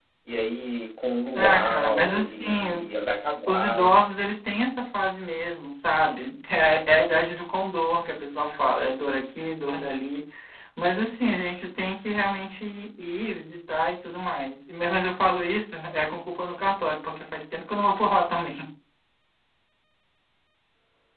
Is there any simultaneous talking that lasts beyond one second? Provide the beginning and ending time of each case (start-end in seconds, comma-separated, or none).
1.3-2.8